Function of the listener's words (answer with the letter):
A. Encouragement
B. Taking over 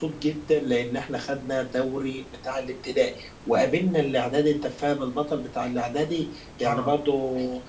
A